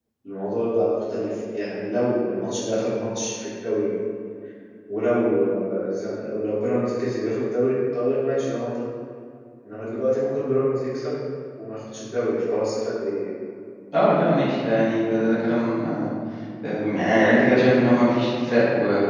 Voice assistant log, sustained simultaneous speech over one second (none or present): none